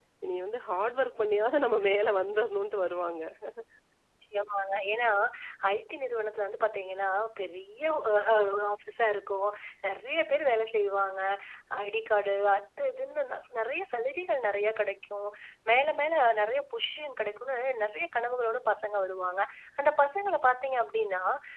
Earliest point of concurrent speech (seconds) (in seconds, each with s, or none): none